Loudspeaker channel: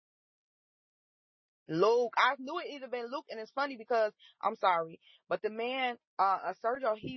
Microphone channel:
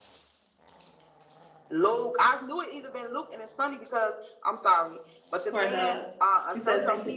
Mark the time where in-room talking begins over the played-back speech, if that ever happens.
5.5 s

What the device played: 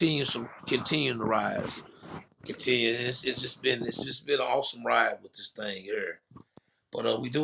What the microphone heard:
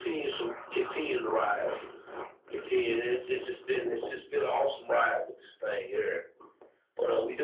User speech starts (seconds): none

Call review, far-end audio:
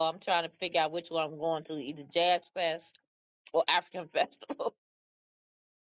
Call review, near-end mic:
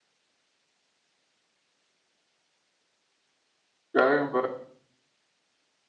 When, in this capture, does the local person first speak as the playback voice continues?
4.0 s

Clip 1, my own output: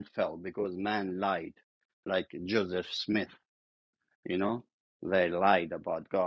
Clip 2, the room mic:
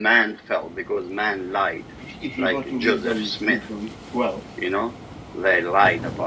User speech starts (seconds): 2.0 s

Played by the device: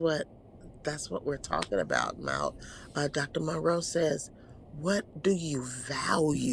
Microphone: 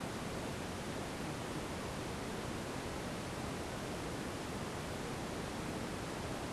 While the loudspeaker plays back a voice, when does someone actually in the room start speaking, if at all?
none

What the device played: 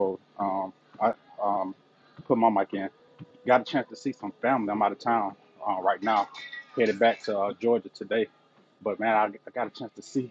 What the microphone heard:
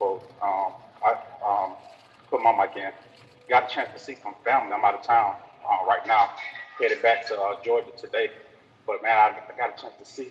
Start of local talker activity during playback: none

